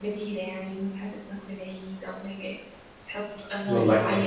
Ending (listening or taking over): listening